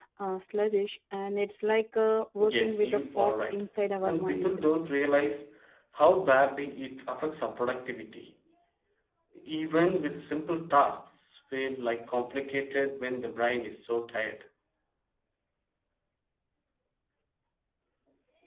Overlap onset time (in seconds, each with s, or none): 2.4 s